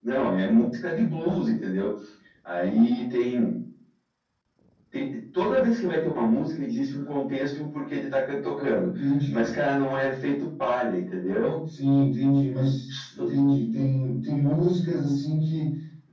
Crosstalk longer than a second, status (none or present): none